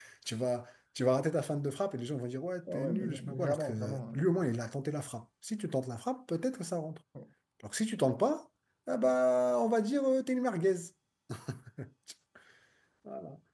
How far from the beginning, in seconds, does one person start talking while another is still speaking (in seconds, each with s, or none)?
2.7 s